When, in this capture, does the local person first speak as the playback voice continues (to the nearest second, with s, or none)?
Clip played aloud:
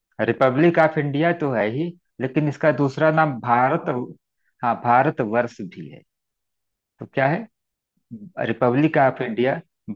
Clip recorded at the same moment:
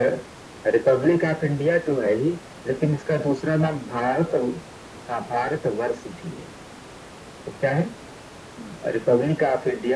none